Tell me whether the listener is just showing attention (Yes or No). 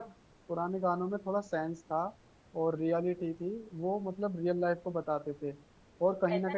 No